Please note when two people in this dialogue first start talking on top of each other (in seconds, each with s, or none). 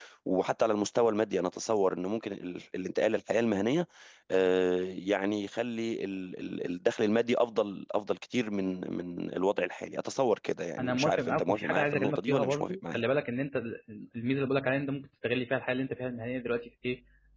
10.8 s